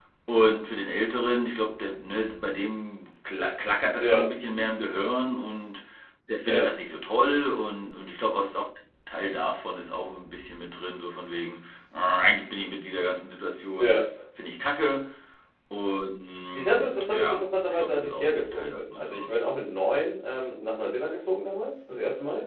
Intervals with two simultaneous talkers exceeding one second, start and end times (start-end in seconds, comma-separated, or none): 16.6-19.3